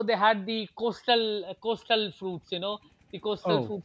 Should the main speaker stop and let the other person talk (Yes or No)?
No